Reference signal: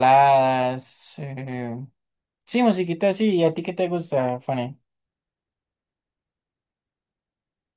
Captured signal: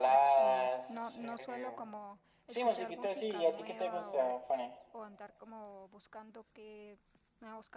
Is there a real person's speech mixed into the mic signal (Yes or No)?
Yes